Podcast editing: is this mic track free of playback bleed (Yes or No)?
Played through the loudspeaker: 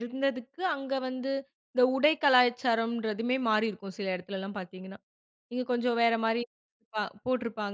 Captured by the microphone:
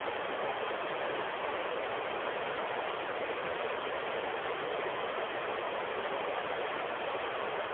Yes